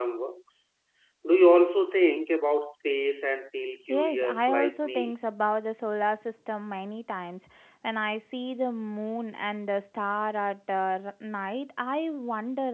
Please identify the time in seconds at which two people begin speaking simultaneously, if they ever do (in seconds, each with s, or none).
3.9 s